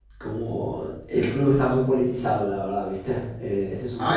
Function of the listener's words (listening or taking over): taking over